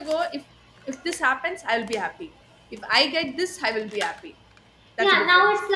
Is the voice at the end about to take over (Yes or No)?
Yes